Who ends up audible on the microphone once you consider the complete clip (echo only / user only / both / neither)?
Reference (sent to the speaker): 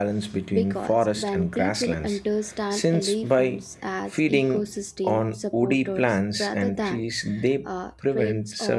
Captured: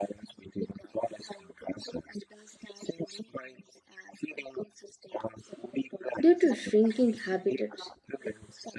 both